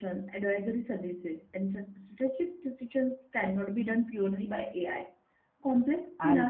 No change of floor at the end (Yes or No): Yes